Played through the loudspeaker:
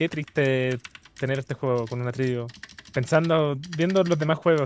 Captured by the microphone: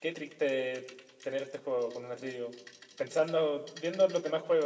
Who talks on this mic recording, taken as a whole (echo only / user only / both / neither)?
echo only